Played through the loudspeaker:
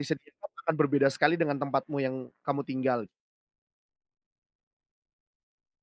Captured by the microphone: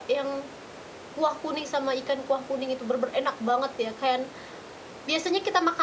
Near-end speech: present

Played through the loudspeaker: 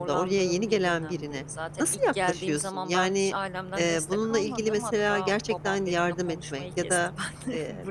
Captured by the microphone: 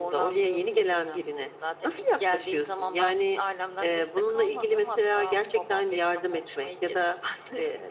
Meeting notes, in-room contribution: none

